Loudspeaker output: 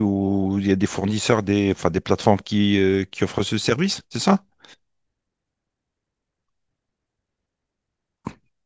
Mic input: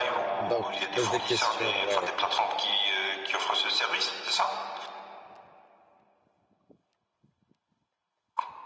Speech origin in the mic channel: both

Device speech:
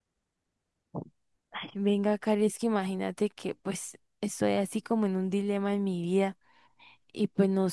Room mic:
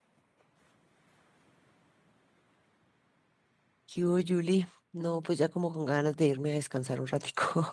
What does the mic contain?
user only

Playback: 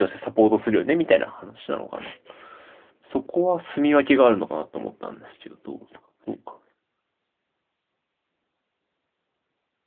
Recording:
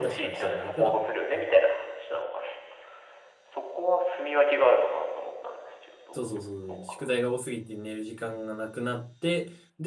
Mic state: both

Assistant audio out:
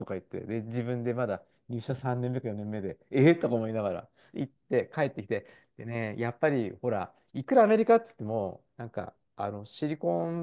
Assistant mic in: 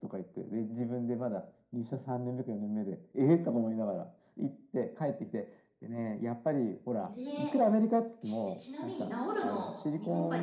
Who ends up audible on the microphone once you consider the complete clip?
both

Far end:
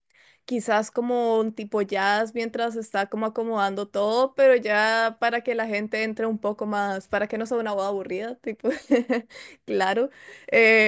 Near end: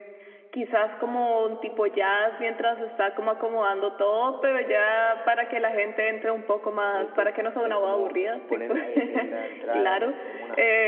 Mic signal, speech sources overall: both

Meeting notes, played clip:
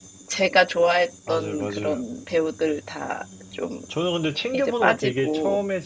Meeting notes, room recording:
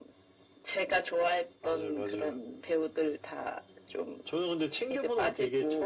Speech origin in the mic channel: echo only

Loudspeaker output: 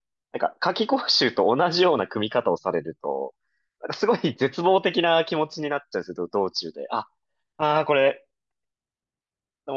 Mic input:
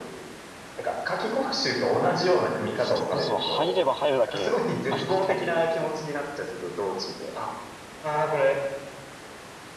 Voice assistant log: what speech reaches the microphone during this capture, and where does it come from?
both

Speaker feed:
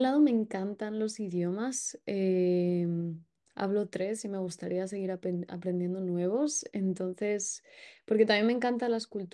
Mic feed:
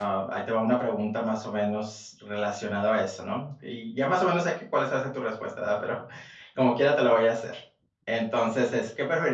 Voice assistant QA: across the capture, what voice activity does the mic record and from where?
user only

